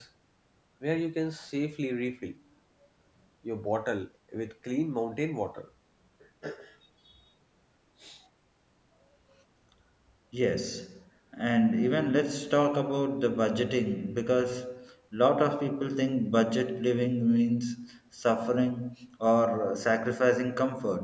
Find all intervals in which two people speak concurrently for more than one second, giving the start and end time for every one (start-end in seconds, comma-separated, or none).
none